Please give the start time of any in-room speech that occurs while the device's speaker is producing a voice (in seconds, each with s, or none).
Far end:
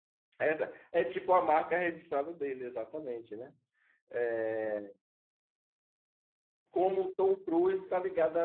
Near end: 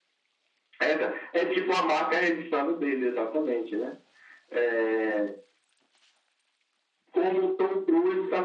none